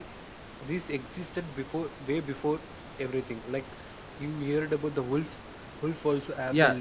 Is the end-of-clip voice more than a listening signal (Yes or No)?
Yes